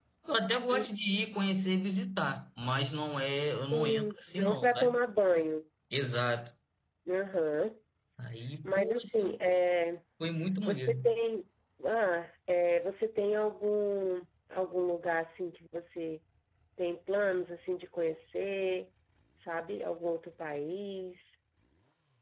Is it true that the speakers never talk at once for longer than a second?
No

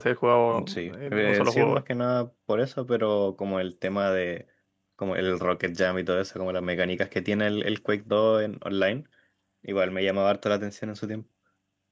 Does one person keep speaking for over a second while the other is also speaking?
Yes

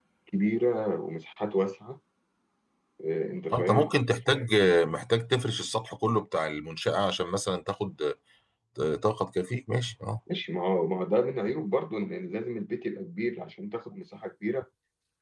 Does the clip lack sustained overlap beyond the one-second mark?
Yes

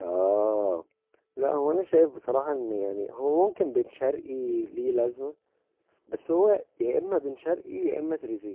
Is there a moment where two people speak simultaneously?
No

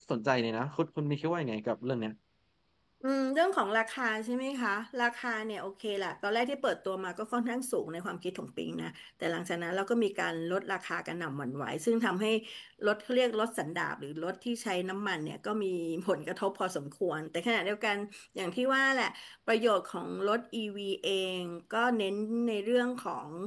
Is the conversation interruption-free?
Yes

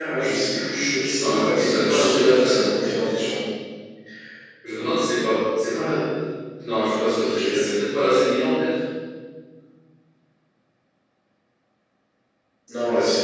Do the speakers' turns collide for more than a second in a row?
Yes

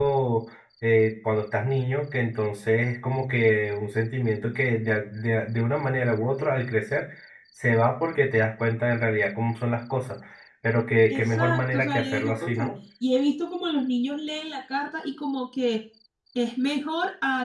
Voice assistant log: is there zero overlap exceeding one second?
No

